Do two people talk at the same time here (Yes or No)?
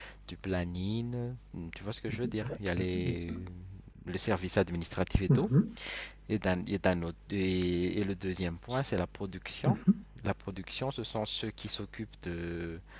Yes